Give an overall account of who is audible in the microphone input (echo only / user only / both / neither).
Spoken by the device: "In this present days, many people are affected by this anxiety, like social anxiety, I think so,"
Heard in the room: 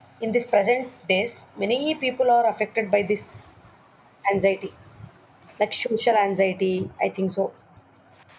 echo only